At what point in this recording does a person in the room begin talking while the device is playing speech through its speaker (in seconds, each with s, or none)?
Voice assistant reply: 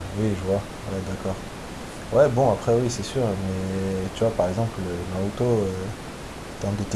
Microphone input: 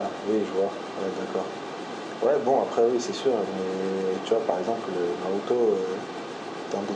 none